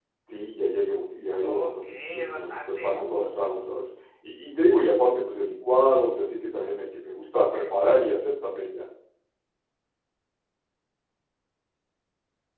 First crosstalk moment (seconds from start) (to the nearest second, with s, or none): 1 s